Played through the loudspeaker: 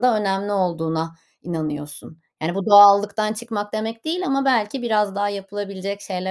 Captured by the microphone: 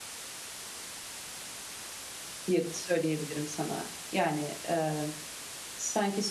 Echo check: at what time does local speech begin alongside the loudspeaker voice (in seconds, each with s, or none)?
2.5 s